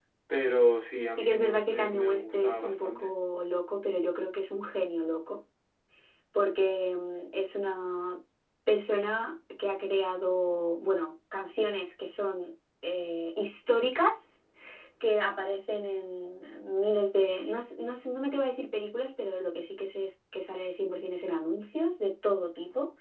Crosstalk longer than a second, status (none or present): present